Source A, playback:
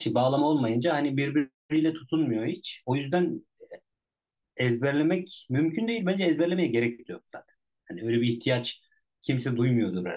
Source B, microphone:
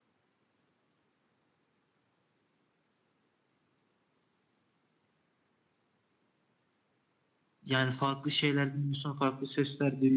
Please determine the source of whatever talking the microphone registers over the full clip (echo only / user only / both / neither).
user only